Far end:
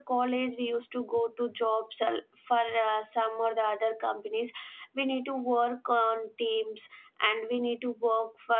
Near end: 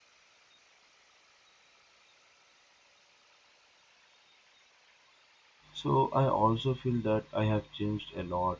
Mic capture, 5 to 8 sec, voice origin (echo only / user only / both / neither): user only